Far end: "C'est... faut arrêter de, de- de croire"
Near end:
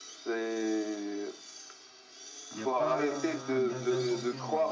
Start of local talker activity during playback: 2.5 s

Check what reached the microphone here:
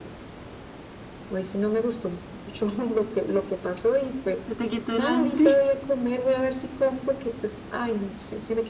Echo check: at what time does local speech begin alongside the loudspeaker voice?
4.4 s

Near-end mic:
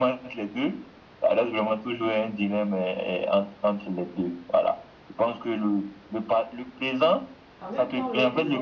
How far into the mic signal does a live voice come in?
7.6 s

